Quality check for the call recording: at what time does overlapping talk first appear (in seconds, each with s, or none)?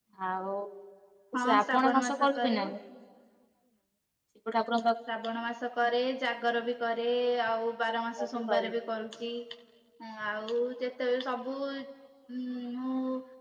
1.3 s